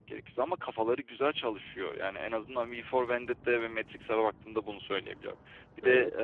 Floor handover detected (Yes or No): No